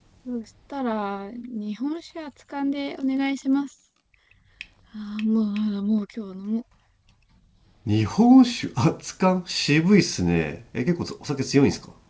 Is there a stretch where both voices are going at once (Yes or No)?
No